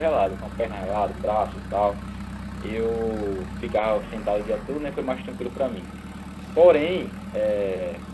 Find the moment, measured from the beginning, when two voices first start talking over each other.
none

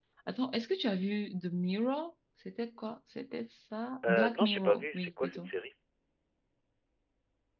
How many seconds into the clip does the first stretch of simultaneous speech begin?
4 s

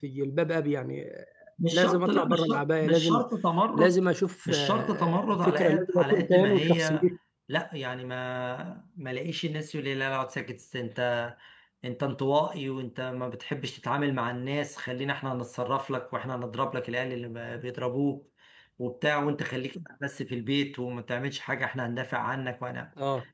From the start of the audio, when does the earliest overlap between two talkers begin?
2 s

